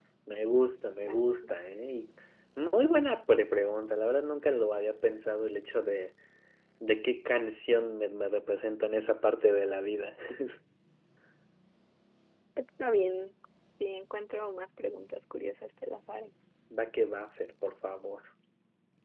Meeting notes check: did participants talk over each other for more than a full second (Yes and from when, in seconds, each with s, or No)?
No